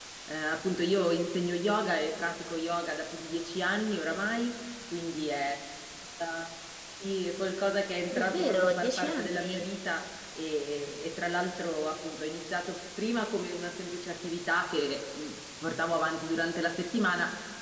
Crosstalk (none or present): present